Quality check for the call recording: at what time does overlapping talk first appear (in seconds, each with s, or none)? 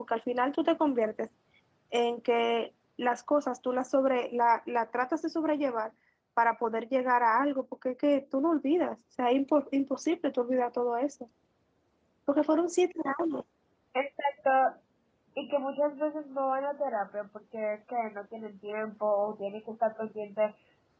none